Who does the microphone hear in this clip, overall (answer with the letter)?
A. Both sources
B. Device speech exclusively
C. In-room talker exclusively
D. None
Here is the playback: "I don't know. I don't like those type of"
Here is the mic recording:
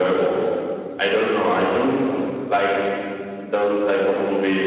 B